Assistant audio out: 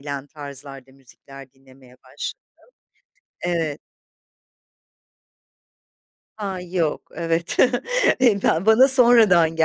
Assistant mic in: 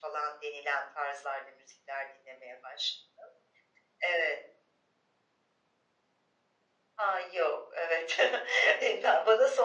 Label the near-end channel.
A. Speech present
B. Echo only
B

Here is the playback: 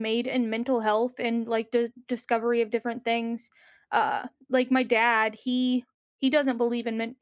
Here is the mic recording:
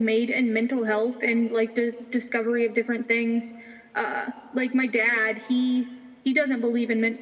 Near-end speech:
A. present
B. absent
B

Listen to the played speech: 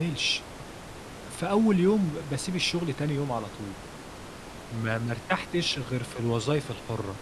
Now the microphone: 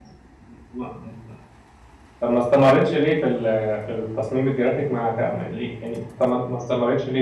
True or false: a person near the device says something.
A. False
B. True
B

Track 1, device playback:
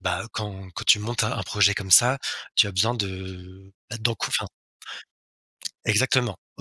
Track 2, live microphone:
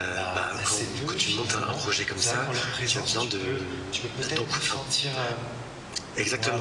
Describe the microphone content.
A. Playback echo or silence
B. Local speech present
B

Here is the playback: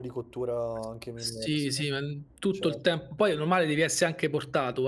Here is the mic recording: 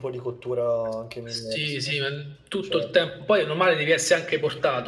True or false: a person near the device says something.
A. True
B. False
B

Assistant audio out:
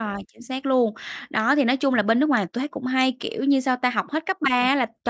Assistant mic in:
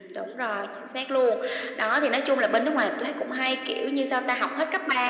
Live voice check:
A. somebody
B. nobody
B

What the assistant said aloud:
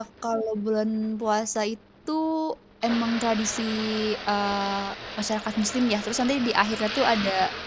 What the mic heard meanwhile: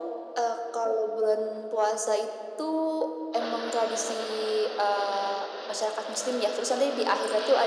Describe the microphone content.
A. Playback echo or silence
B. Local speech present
A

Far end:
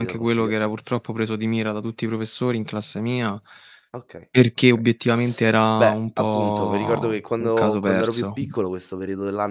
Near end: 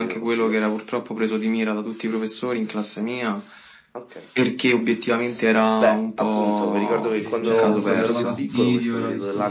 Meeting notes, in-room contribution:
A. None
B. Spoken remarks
B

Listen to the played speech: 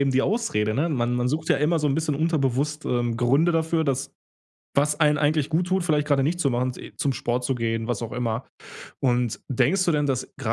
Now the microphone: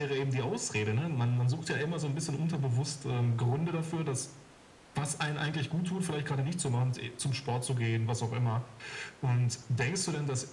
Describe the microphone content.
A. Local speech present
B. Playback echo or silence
A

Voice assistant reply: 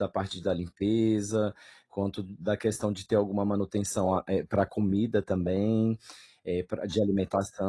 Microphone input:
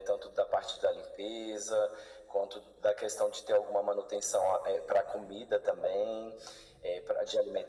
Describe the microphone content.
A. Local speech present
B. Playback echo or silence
B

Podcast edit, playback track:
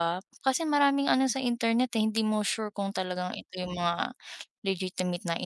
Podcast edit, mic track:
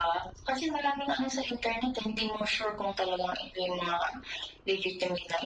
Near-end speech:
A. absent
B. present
A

